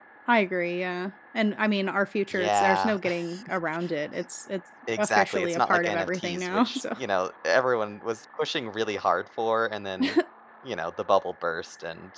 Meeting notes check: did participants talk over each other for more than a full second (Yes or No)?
Yes